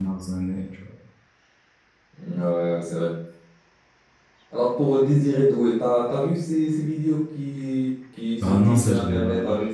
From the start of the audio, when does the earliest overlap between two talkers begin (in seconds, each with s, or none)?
8.4 s